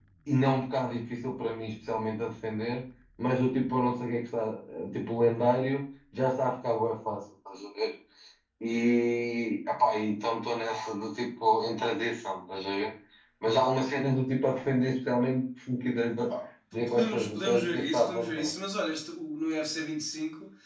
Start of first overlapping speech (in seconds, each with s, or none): 16.7 s